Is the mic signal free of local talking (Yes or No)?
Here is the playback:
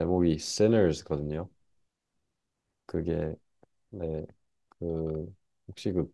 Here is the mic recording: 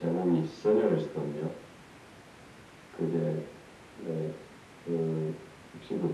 Yes